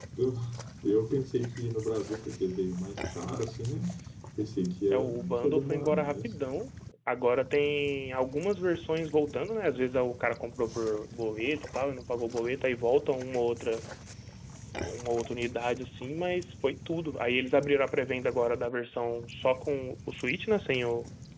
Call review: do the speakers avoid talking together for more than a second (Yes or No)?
No